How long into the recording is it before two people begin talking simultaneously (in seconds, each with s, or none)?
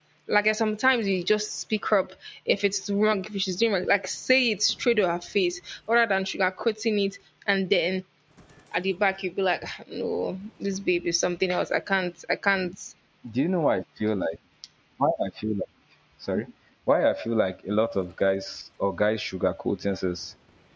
none